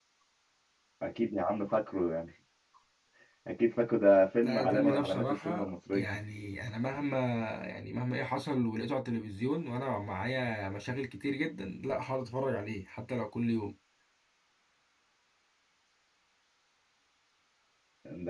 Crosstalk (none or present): present